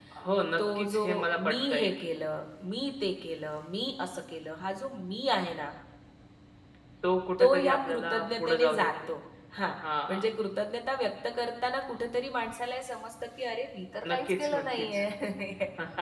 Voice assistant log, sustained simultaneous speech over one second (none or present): present